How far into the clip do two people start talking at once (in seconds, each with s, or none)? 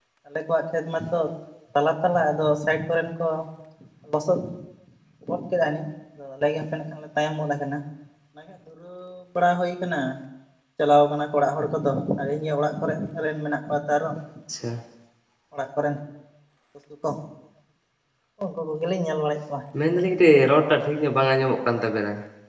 none